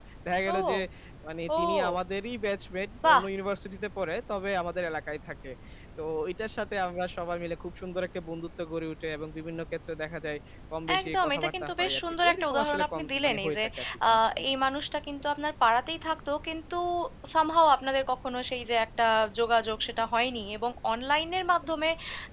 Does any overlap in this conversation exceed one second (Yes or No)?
Yes